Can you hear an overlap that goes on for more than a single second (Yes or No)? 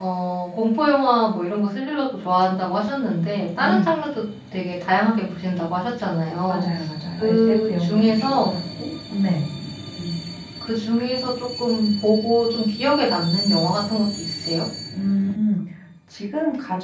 Yes